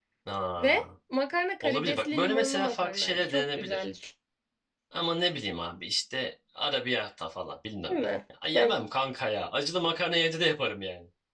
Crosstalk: present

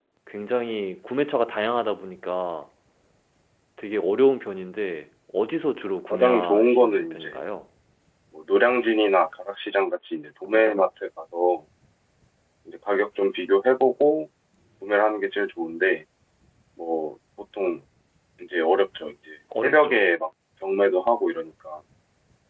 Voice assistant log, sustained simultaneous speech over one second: present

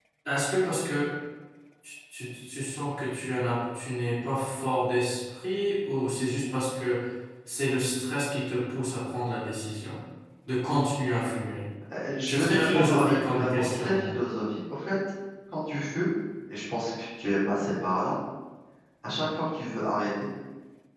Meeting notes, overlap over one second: present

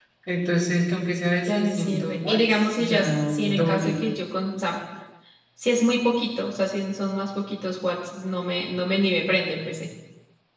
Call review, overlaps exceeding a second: present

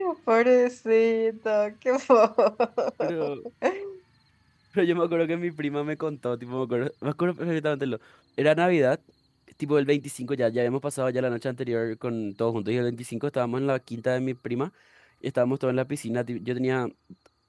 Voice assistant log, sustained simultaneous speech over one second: none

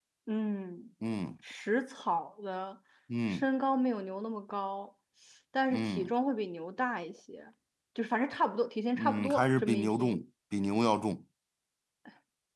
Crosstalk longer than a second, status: present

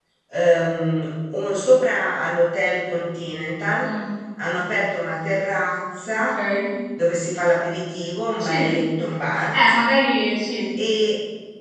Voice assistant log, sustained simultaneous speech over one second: none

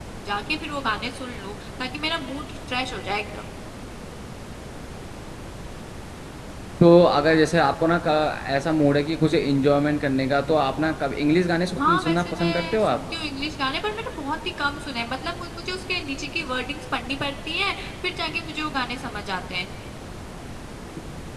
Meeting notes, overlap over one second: present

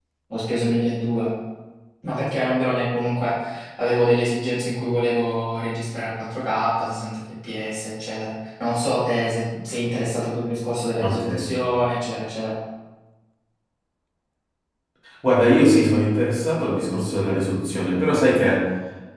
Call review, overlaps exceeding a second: none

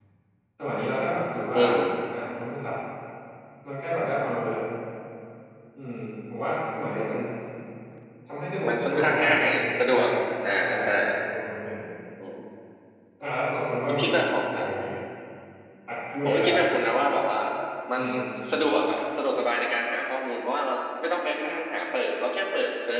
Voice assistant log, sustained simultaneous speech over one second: present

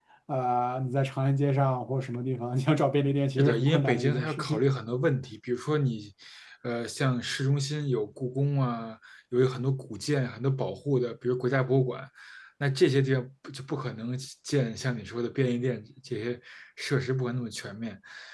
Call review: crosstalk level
present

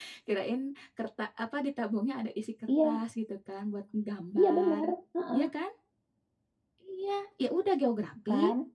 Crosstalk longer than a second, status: none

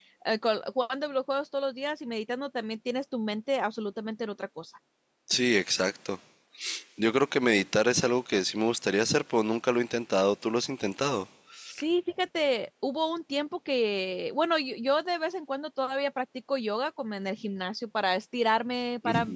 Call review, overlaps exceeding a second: none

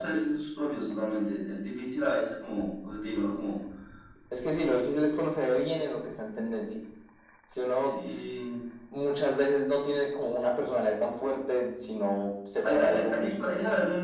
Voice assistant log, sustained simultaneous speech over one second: present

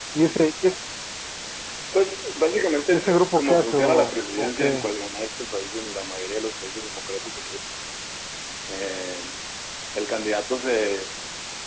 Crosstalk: present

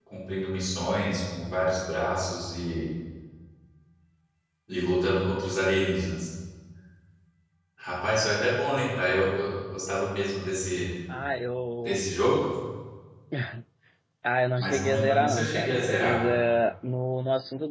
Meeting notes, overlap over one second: present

